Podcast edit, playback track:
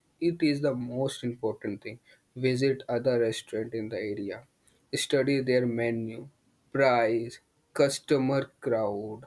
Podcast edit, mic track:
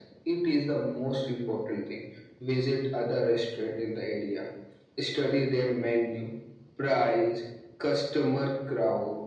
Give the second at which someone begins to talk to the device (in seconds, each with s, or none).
none